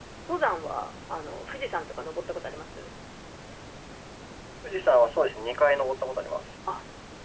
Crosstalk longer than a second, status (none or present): none